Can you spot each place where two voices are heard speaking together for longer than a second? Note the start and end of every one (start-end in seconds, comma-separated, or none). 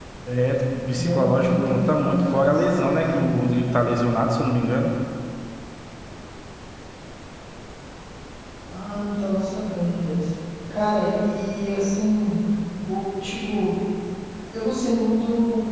1.0-3.4